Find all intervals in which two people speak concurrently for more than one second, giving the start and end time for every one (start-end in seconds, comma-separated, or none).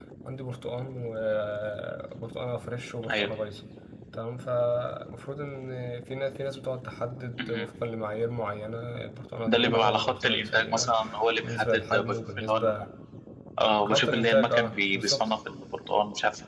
9.5-10.9, 11.4-12.7, 13.8-15.3